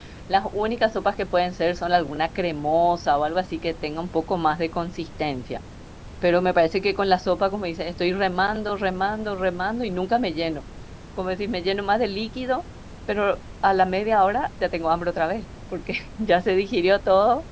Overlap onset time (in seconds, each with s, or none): none